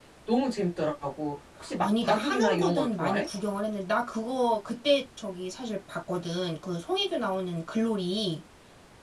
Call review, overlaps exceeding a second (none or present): present